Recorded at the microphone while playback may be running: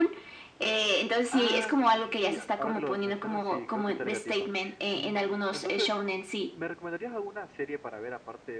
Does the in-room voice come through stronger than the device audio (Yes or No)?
No